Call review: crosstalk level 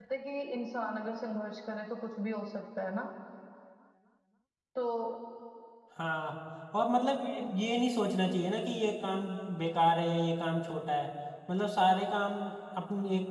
none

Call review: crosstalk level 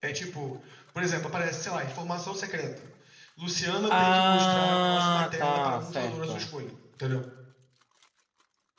present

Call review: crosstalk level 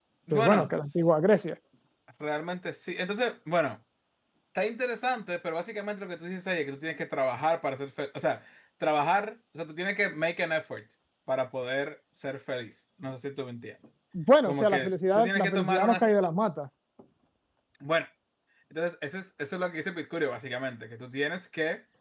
present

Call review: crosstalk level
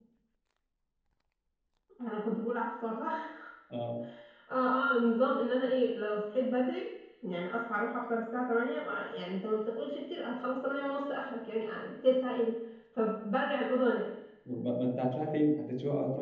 none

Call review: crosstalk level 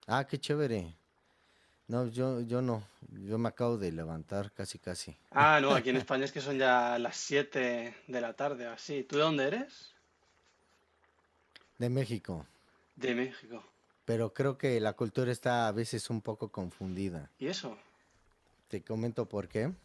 none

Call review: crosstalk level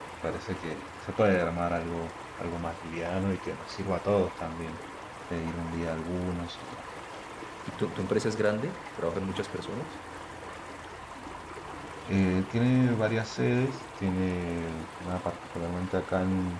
none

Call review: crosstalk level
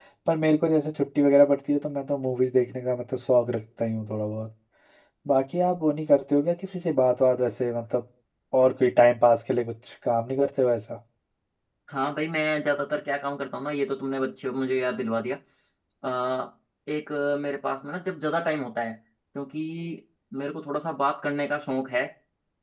none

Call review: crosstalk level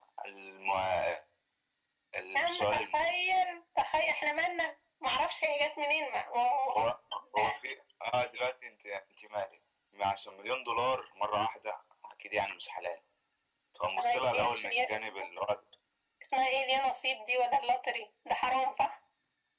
present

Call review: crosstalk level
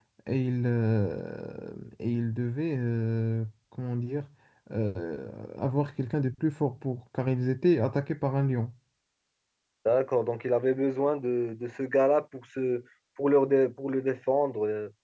none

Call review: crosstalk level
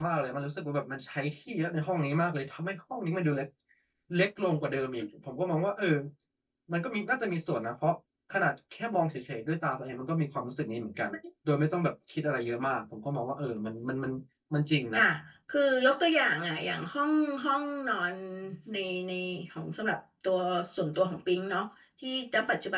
none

